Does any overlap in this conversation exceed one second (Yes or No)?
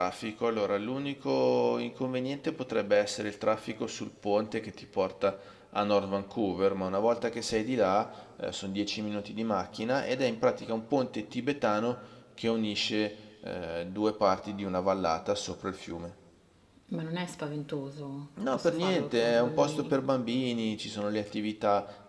Yes